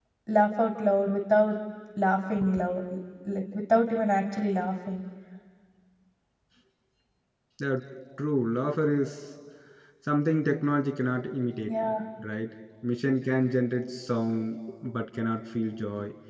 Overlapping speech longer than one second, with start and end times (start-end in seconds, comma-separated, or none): none